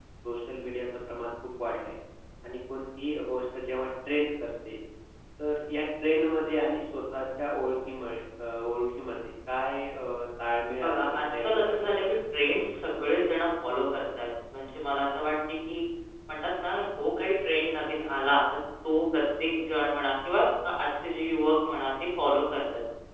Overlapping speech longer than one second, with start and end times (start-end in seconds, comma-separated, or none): 10.8-12.0